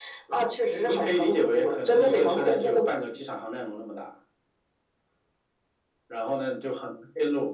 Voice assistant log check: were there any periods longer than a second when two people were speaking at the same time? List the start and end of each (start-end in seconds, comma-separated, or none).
0.8-2.8